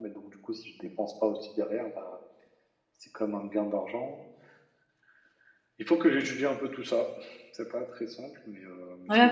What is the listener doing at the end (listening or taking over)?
taking over